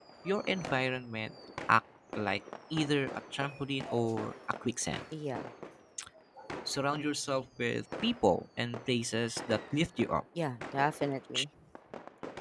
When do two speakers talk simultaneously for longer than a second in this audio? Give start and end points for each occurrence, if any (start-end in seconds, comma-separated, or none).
none